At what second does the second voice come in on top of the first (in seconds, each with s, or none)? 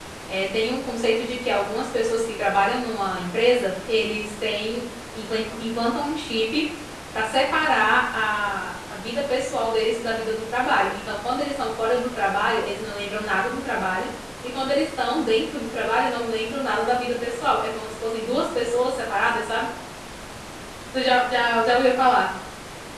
none